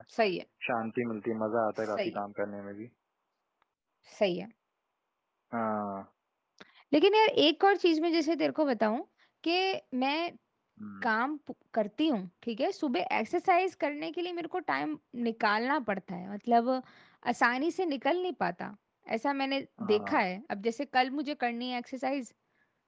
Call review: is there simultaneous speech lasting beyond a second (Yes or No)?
No